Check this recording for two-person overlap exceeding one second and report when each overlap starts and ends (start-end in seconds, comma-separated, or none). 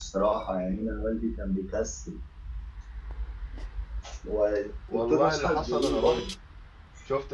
4.9-6.2